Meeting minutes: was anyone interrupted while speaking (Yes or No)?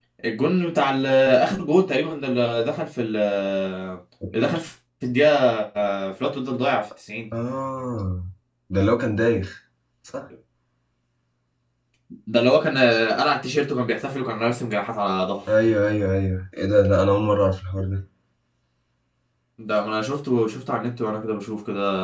No